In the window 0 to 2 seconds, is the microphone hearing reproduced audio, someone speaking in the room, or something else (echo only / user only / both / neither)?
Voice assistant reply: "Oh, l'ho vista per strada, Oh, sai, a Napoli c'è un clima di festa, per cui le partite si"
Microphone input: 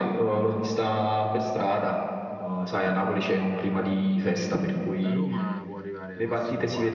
echo only